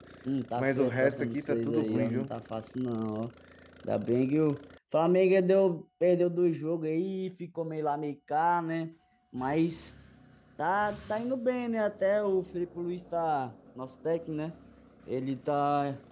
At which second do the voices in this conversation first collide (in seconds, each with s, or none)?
0.6 s